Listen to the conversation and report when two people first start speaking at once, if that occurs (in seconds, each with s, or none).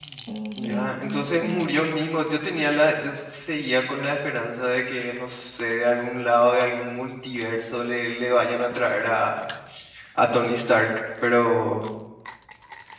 0.6 s